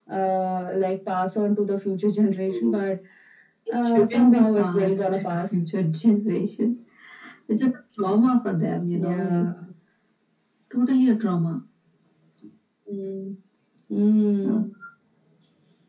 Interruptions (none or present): present